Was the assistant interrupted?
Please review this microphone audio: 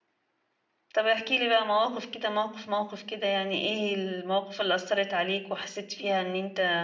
Yes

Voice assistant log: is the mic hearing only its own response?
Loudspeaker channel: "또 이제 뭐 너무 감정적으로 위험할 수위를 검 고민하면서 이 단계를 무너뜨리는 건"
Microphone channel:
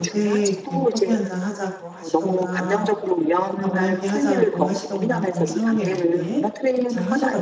No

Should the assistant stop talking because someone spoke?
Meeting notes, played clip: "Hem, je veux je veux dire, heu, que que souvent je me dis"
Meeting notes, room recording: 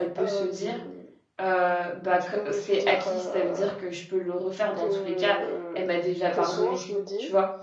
Yes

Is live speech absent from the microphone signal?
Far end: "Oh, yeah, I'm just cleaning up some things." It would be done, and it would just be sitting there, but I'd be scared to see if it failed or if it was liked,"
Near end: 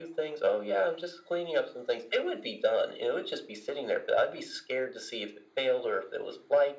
Yes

